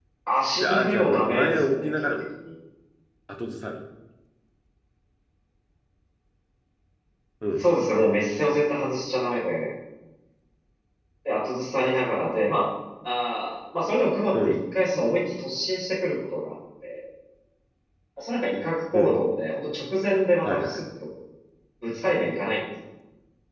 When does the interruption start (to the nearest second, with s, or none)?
1 s